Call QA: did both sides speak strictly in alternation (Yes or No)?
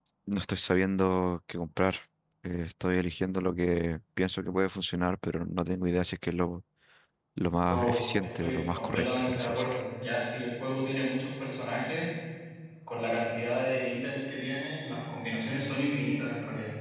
No